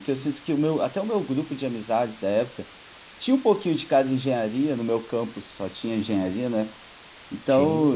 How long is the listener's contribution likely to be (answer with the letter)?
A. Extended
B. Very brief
B